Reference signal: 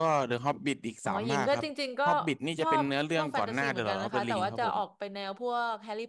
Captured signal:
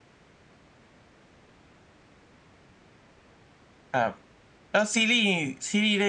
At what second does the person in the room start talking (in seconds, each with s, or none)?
3.9 s